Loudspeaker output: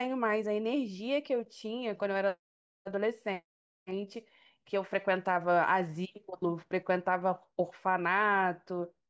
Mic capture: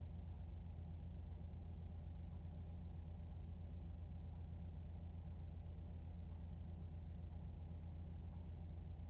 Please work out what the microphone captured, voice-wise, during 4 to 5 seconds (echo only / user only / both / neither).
neither